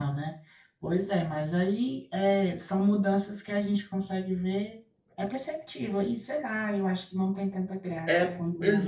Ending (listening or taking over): taking over